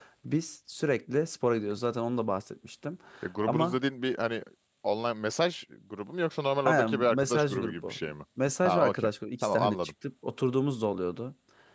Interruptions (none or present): present